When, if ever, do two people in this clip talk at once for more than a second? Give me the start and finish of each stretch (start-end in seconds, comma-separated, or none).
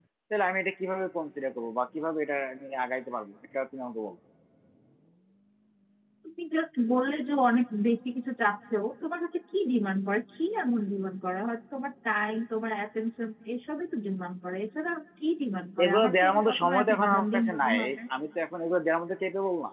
15.8-18.0